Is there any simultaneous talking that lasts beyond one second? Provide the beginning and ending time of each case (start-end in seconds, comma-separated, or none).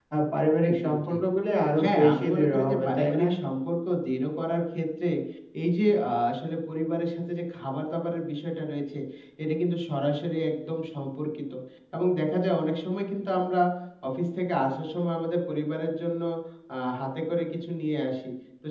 1.8-3.3